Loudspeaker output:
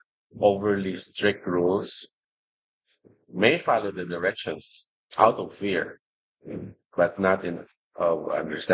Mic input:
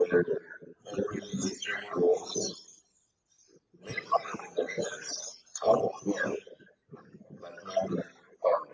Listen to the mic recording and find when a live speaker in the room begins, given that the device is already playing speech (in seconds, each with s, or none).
none